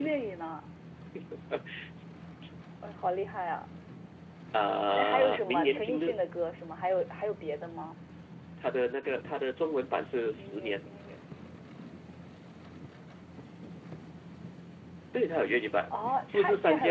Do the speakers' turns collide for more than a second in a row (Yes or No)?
Yes